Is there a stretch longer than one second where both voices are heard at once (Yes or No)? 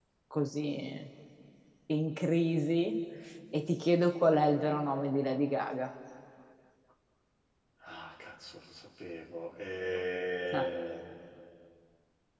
No